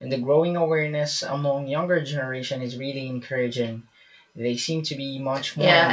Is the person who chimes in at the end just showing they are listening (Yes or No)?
No